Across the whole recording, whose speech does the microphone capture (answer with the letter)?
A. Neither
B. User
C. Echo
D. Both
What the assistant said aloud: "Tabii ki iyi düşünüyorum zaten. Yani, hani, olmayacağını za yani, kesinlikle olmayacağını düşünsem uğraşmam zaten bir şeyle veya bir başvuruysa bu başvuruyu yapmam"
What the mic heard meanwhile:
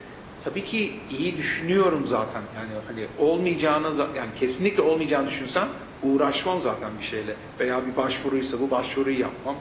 C